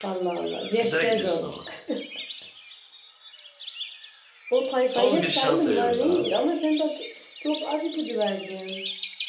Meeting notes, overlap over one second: present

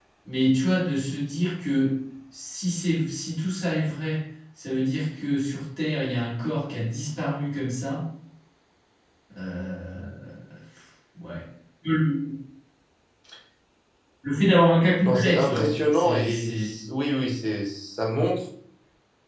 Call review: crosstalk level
present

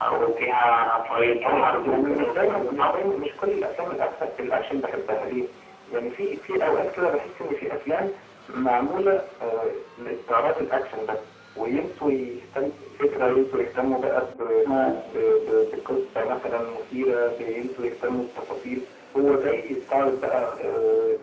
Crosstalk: present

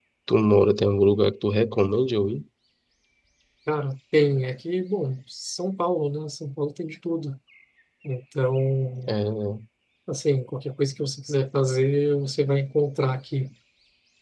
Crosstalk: none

